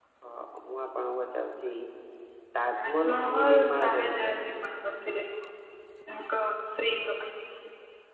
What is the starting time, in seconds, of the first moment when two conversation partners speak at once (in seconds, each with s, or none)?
2.8 s